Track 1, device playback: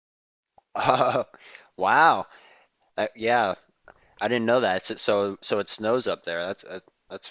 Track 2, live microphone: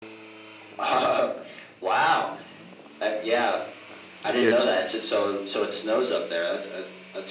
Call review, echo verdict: present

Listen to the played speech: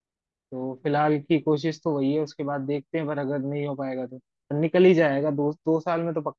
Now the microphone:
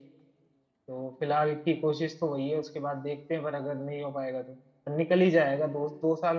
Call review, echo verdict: present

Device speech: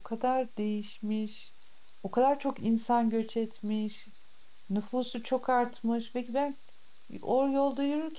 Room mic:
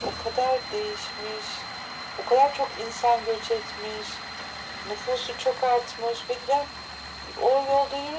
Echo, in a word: present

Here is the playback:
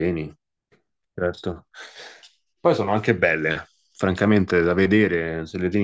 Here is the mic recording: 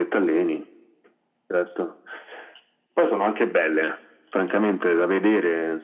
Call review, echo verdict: present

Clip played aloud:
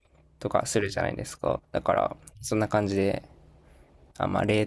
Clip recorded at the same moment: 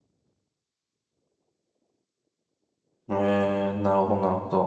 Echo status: none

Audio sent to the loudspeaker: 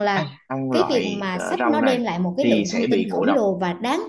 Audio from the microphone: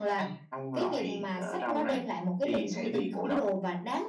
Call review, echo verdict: present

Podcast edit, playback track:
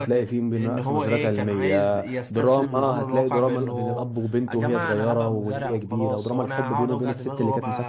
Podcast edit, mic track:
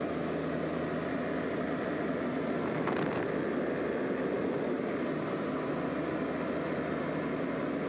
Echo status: none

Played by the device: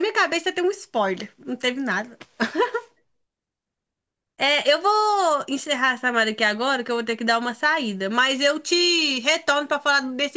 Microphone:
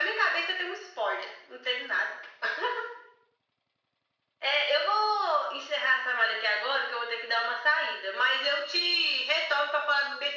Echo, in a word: present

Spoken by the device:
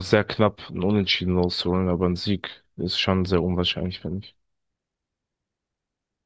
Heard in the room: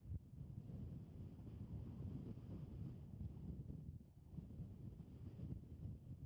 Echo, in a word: none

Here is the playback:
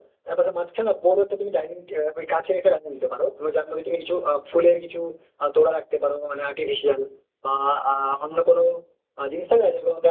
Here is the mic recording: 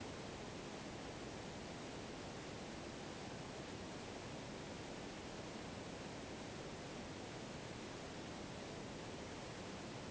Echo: none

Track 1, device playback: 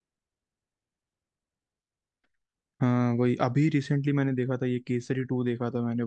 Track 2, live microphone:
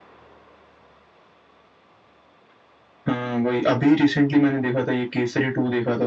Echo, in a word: present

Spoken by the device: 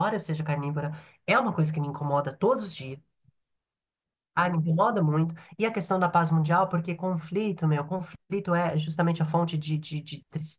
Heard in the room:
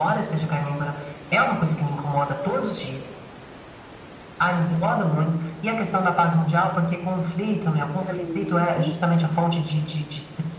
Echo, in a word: present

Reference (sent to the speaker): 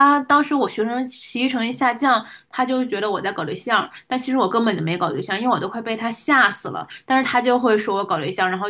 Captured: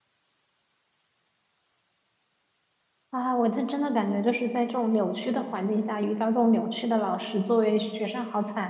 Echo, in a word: none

